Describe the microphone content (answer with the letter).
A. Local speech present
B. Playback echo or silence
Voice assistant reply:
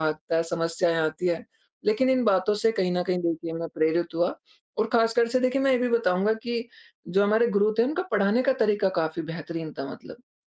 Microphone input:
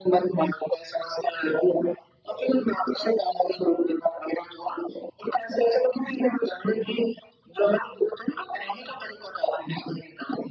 B